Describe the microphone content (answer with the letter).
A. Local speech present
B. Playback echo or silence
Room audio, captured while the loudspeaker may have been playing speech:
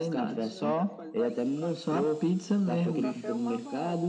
A